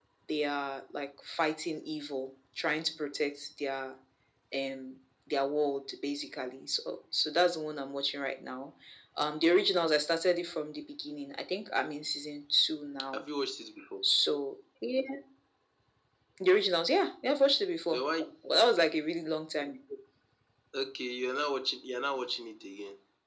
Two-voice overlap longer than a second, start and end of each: none

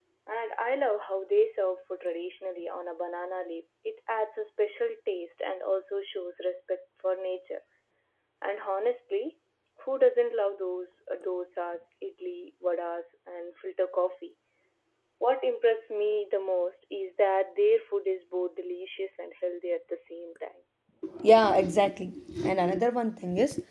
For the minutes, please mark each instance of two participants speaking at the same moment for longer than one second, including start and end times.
none

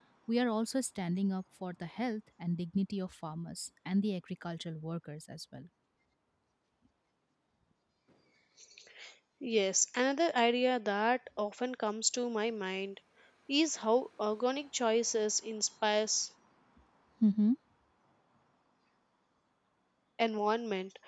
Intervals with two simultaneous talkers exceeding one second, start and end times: none

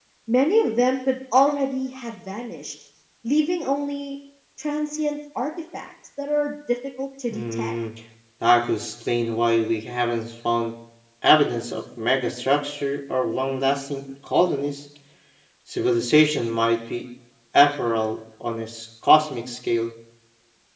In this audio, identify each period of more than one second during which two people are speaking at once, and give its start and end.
none

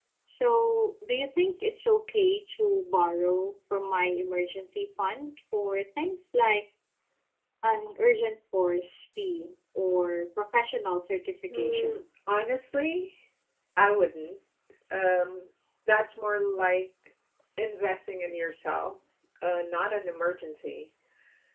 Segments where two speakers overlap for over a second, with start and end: none

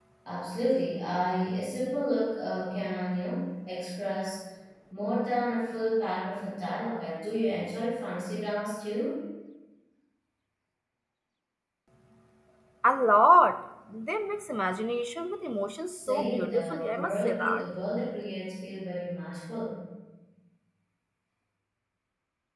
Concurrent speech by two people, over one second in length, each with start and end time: 15.9-17.6

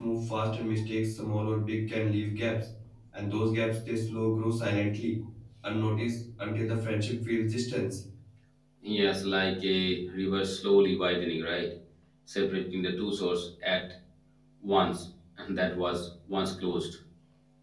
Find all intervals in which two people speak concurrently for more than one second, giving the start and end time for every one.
none

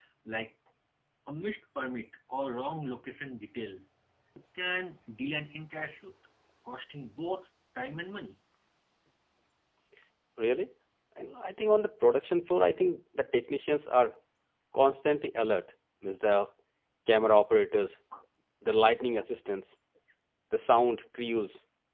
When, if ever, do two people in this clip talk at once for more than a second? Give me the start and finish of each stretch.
none

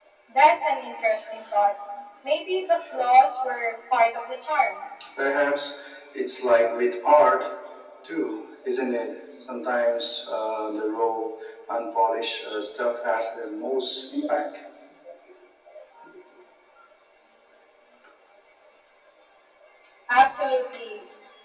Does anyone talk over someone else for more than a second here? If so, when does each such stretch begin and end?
none

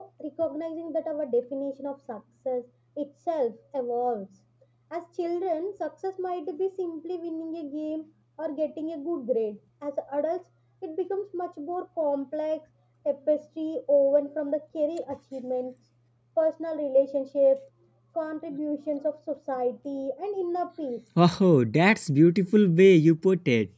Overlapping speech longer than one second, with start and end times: none

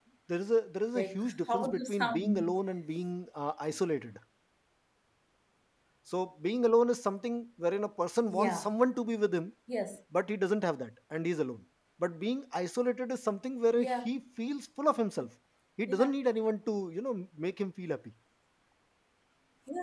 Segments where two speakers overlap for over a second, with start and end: 0.9-2.5

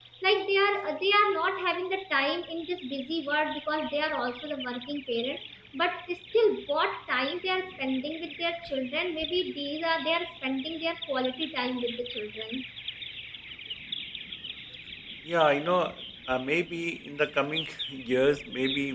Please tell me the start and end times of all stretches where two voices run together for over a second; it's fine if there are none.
none

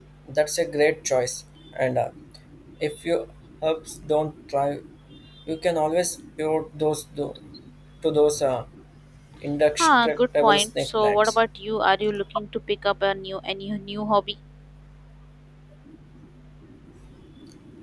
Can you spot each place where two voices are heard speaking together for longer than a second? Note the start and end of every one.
9.8-11.4

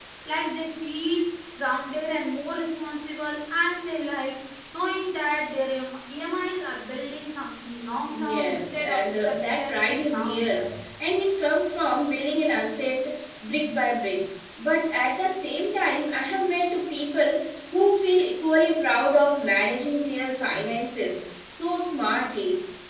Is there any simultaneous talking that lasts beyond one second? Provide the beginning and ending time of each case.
8.2-10.7

